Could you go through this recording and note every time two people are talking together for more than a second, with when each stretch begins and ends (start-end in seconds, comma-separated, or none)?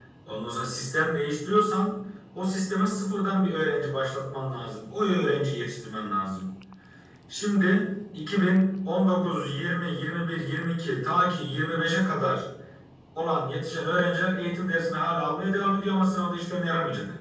none